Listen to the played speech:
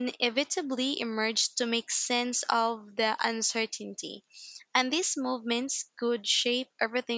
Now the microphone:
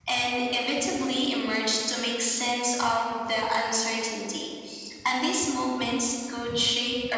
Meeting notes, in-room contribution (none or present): none